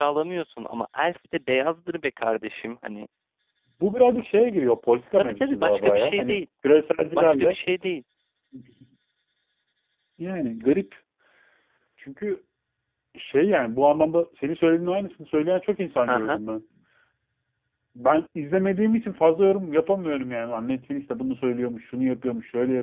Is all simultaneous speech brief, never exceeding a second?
No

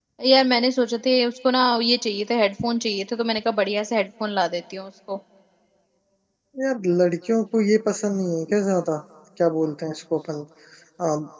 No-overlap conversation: Yes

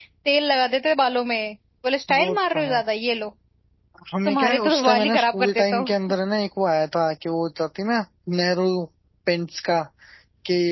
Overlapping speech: Yes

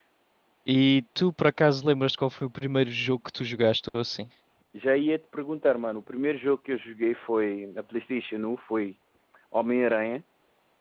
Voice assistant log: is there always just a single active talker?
Yes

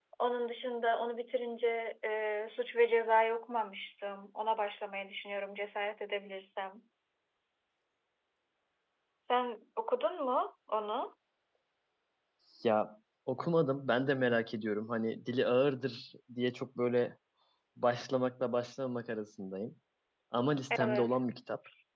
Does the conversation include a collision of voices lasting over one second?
No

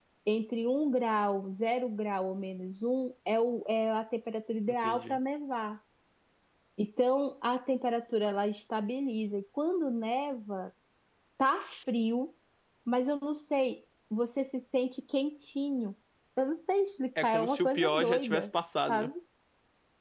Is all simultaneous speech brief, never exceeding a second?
No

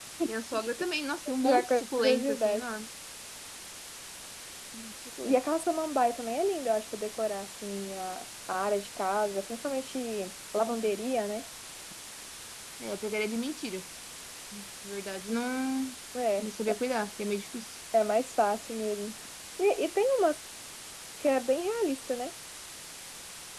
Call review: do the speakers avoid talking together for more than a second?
No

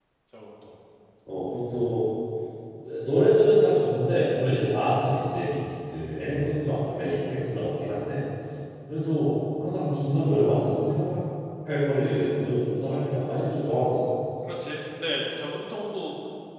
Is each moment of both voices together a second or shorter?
Yes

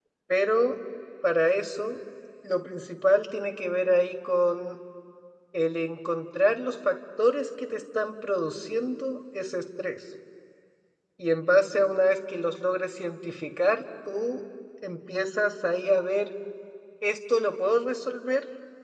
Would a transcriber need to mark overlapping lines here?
No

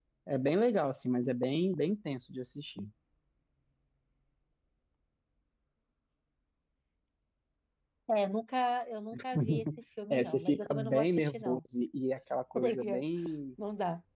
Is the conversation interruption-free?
No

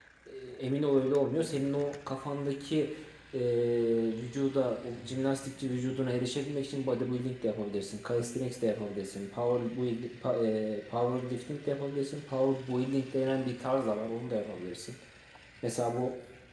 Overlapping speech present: No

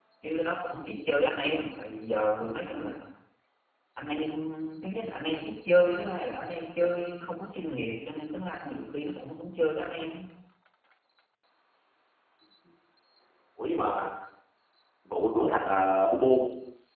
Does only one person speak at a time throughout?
Yes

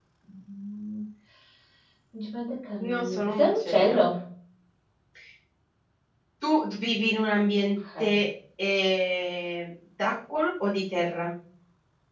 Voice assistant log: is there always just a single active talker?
No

